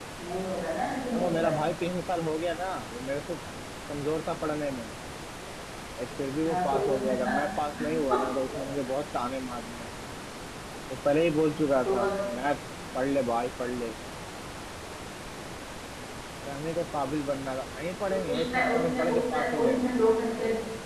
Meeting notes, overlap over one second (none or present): present